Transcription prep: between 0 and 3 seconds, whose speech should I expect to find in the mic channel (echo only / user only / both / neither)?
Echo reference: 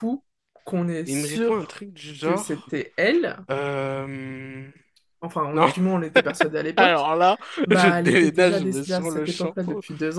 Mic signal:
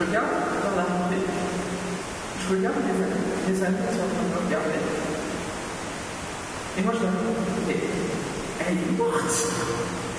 user only